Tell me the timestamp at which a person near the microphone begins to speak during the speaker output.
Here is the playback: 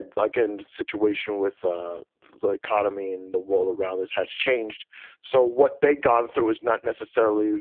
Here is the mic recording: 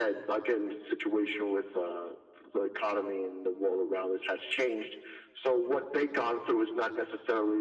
none

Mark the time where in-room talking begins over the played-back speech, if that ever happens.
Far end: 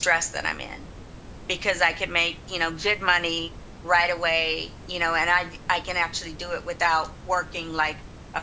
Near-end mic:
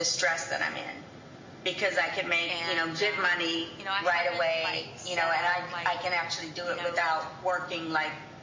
2.5 s

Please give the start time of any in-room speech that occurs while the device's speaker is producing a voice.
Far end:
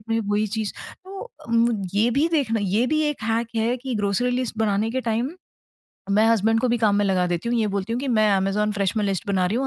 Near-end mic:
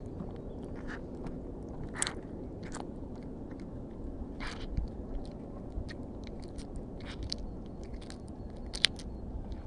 none

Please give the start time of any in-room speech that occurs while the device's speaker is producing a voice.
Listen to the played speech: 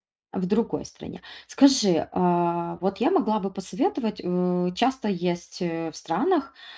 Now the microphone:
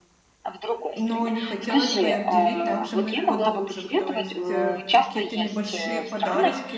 0.9 s

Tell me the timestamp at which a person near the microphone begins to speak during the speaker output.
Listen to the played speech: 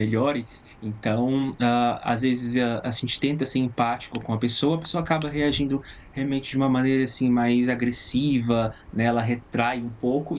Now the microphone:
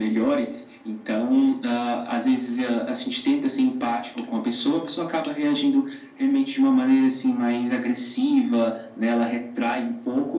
none

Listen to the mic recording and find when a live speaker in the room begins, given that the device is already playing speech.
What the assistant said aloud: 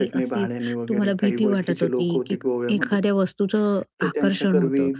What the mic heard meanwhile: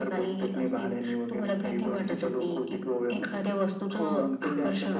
4.0 s

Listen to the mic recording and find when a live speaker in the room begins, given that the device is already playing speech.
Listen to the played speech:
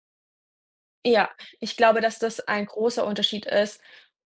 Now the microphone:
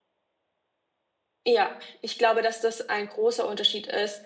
none

